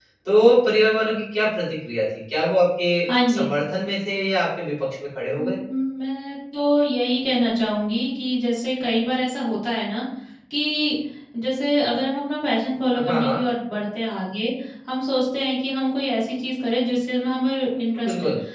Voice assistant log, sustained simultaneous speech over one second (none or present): none